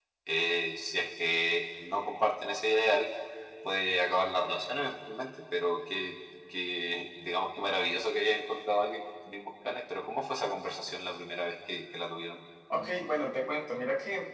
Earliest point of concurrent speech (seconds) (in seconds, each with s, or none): none